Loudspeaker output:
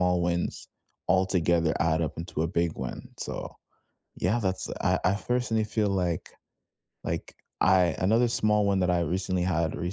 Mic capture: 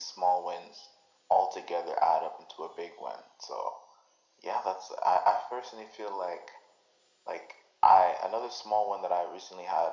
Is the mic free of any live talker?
Yes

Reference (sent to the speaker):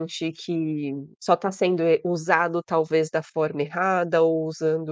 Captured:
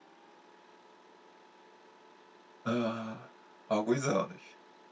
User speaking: Yes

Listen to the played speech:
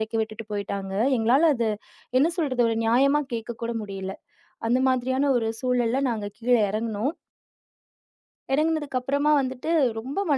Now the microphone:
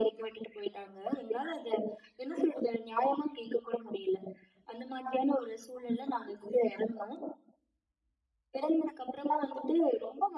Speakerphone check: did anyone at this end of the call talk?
No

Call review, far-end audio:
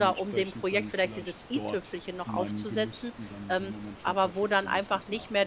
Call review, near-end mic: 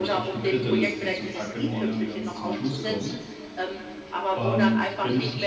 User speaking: Yes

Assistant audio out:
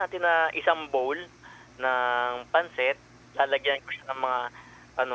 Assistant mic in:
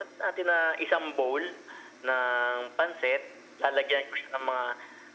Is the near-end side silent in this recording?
Yes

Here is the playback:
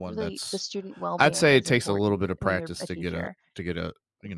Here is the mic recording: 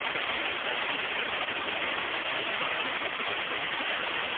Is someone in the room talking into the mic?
No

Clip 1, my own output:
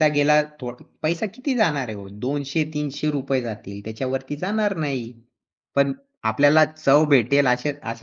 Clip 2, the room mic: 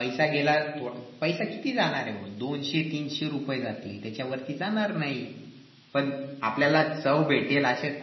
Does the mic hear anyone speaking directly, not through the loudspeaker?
No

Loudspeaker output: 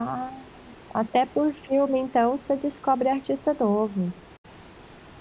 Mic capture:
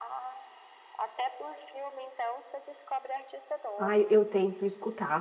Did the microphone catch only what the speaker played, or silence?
No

